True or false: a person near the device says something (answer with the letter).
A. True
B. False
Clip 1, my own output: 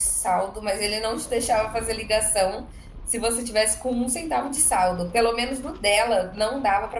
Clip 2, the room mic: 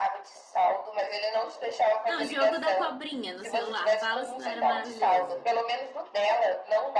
A